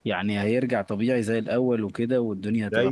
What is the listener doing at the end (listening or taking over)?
taking over